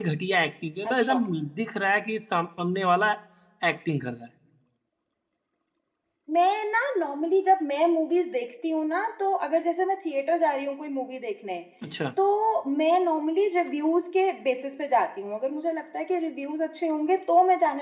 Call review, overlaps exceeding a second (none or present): none